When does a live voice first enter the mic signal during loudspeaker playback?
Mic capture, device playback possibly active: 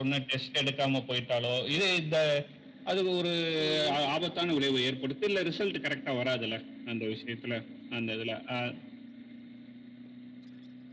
3.6 s

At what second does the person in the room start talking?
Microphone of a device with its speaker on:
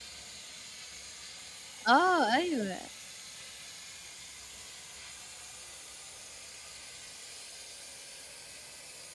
1.9 s

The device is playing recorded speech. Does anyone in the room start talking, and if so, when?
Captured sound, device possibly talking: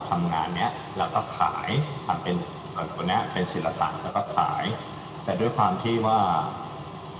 none

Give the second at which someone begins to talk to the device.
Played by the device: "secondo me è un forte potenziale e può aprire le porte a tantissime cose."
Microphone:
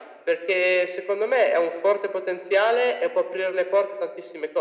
none

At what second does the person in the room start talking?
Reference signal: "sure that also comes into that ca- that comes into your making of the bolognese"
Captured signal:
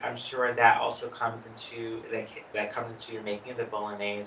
none

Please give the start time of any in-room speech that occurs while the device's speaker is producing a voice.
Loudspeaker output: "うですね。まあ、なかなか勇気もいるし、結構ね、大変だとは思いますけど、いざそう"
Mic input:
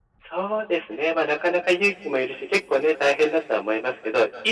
none

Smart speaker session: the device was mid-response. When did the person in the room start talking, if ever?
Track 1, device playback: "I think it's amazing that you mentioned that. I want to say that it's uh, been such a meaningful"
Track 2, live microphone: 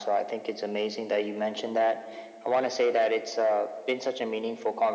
none

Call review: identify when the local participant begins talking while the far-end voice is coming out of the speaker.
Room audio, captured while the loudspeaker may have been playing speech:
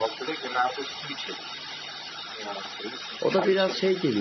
3.2 s

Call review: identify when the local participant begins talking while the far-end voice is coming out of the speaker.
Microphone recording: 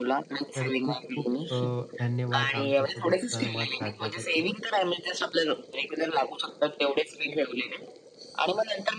0.6 s

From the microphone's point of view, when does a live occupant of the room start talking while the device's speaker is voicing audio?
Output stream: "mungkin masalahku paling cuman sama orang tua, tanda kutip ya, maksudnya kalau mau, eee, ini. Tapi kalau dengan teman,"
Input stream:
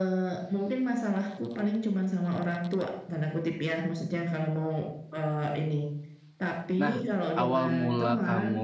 6.8 s

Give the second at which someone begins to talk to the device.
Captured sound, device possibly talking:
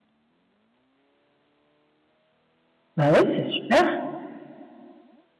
3.0 s

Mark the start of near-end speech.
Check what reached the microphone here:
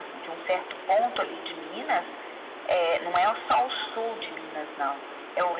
none

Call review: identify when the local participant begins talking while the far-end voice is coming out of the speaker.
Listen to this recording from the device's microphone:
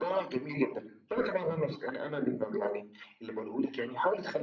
none

